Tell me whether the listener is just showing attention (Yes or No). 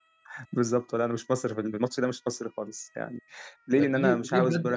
No